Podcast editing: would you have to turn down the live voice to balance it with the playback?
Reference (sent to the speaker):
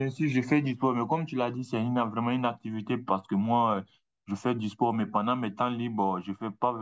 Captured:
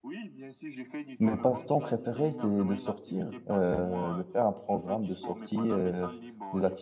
Yes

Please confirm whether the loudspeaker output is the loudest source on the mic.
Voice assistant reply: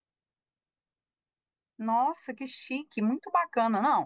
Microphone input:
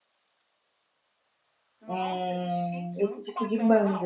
No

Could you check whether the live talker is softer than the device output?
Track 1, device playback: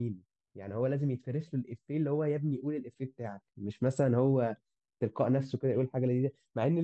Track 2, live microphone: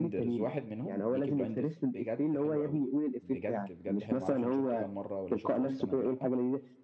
Yes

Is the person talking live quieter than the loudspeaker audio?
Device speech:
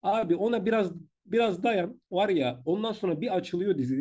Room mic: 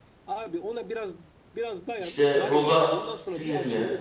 No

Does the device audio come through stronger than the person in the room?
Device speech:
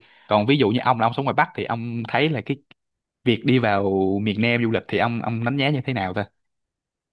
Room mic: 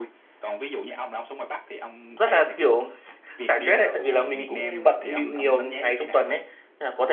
No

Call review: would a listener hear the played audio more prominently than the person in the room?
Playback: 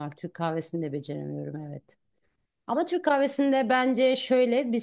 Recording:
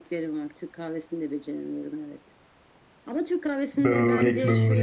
No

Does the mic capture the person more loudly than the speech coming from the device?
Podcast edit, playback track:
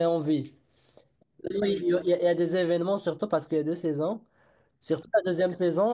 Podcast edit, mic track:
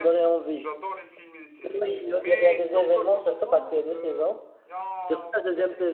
No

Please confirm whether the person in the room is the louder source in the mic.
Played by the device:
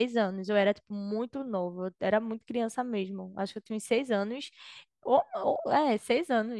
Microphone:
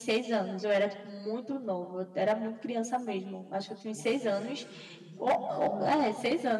No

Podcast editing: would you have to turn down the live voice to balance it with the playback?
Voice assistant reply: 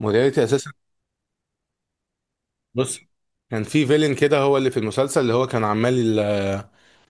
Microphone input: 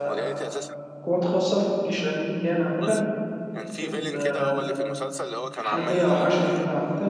Yes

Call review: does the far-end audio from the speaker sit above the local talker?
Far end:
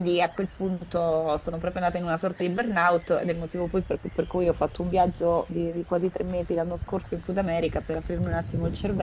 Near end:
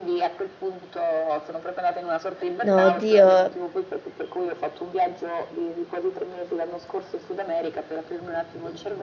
No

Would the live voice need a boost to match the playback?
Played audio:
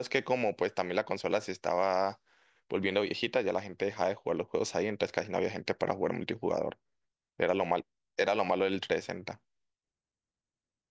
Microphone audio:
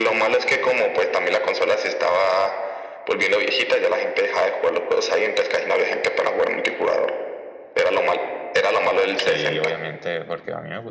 Yes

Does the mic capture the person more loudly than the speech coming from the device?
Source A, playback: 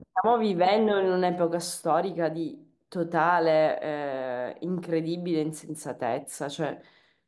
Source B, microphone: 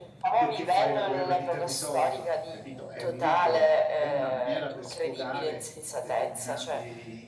No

